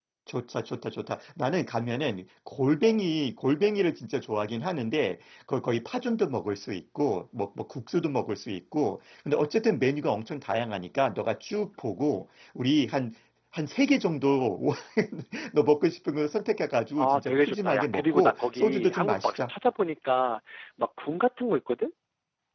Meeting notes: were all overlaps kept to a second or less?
No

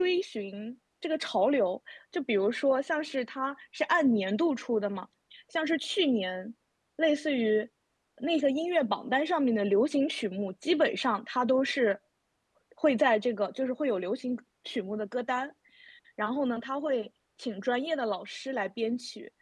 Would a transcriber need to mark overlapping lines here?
No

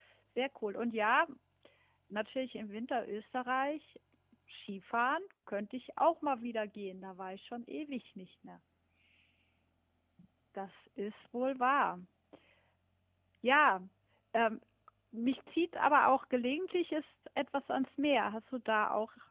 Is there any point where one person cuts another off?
No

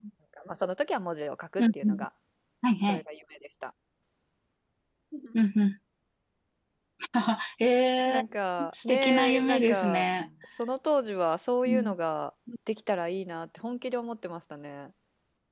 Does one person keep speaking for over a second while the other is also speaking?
Yes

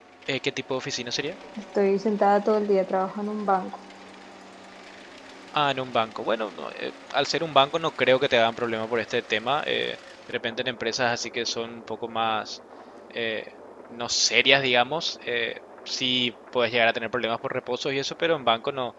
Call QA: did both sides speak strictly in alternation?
Yes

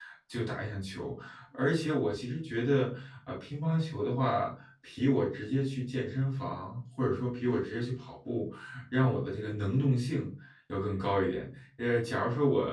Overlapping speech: No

